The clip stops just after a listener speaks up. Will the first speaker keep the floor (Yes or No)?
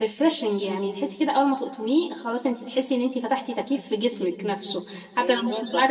Yes